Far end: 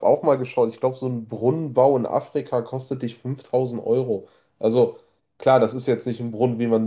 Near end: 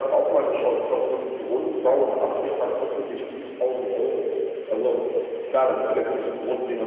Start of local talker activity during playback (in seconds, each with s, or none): none